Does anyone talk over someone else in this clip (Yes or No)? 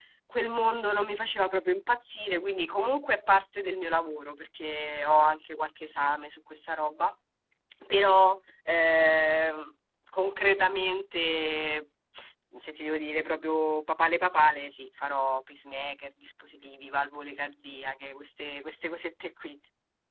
No